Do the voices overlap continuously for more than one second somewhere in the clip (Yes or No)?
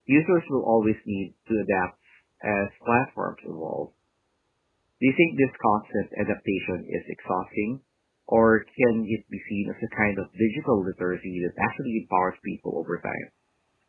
No